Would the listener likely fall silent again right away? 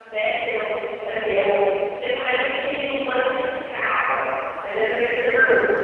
Yes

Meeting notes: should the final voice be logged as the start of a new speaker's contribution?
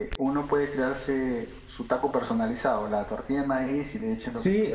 Yes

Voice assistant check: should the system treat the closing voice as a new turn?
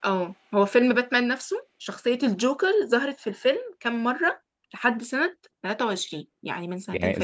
Yes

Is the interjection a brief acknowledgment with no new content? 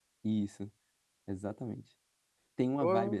Yes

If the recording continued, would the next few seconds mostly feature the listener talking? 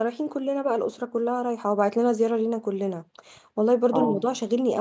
No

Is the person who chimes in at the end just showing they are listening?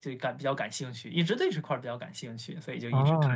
No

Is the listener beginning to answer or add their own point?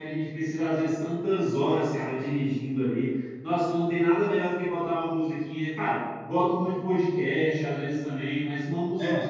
No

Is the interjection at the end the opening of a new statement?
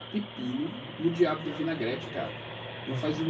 No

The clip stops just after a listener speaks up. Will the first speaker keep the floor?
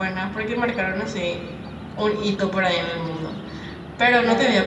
Yes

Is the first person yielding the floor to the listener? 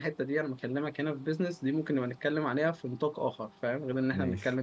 No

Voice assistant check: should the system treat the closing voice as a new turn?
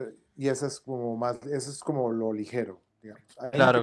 No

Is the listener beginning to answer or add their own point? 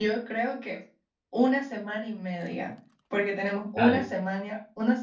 No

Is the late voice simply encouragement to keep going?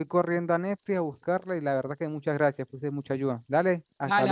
No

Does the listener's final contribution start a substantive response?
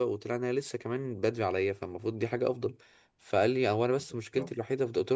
No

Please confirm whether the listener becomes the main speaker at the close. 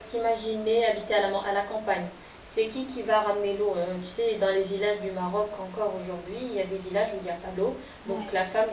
No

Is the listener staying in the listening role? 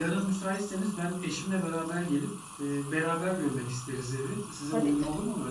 No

